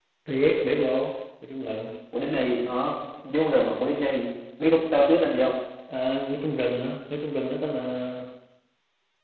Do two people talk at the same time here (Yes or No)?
No